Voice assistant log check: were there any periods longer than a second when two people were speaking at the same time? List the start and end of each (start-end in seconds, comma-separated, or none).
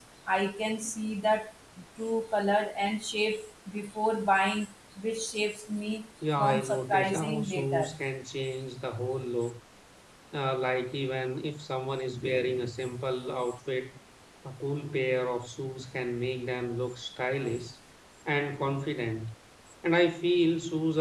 6.4-8.0